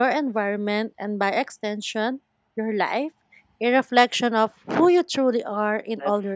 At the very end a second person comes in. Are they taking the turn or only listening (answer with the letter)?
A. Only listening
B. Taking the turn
B